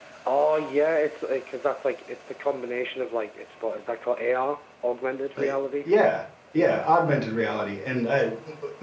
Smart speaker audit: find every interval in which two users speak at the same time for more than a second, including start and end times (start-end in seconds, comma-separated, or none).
none